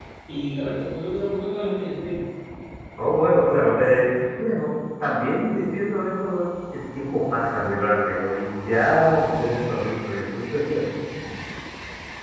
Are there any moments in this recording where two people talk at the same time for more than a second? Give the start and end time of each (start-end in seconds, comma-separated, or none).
none